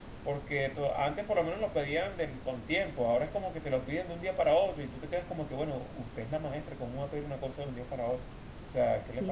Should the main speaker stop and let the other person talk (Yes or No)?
Yes